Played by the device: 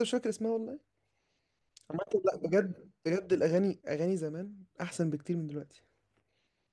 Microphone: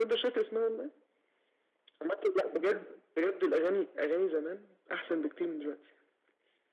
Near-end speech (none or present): none